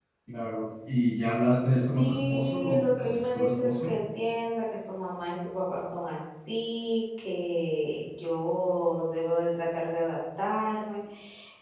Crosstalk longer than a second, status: present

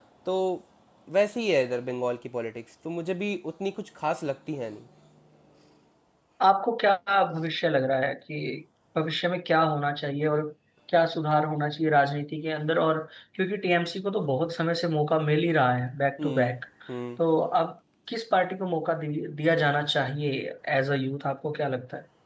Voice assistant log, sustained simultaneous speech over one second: none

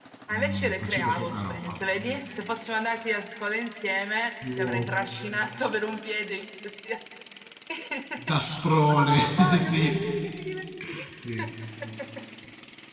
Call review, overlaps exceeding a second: present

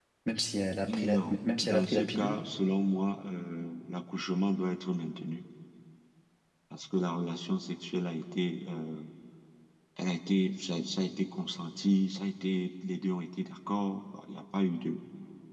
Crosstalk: present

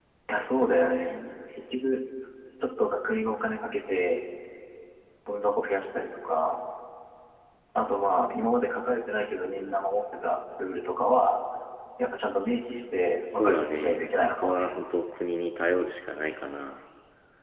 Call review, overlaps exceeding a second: present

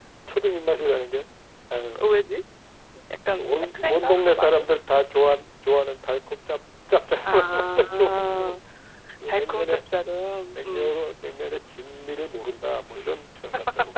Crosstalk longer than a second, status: present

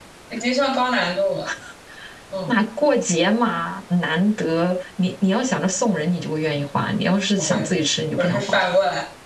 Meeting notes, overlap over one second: none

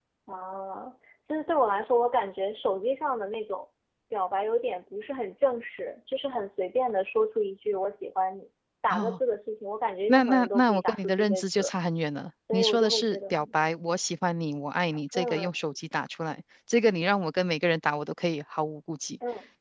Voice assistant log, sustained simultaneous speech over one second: present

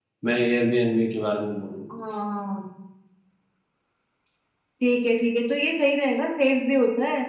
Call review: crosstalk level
none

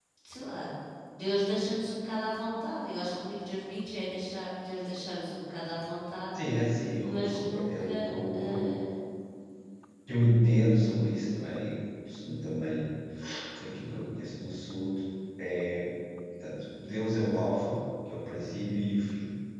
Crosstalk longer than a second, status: present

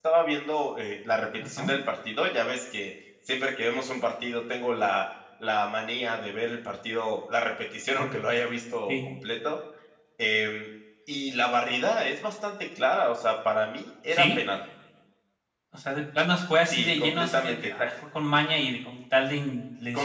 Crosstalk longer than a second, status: present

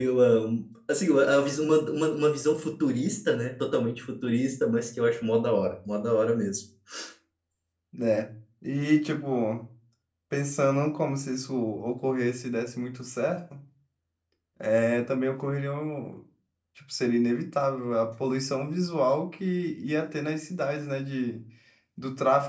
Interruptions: none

